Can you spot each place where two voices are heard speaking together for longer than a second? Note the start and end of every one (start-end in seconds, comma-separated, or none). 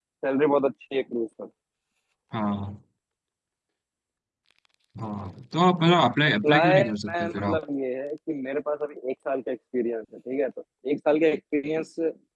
6.3-7.6